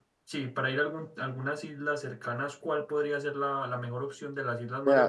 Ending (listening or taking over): taking over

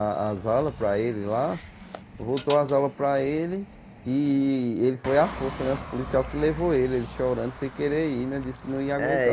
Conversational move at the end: taking over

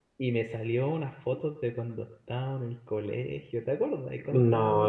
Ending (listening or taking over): taking over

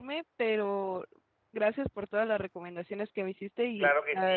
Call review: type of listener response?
taking over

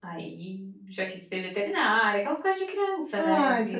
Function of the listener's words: taking over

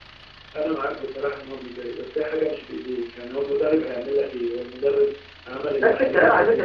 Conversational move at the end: taking over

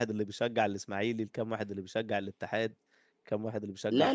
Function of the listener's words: taking over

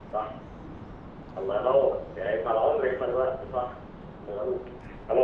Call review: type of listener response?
listening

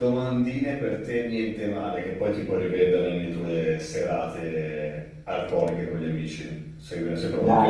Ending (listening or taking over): taking over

